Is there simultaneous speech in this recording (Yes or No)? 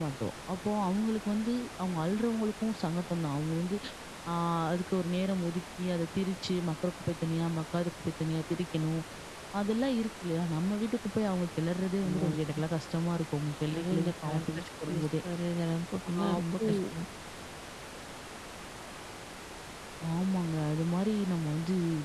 Yes